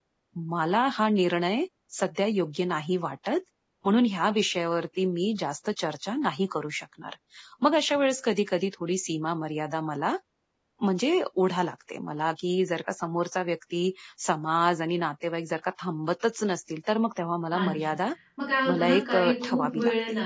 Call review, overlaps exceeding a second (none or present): present